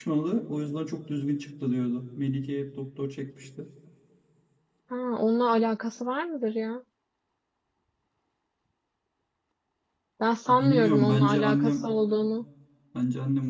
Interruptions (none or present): present